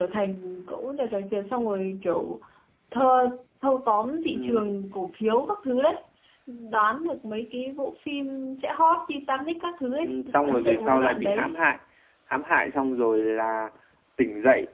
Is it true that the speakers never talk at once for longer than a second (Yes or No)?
No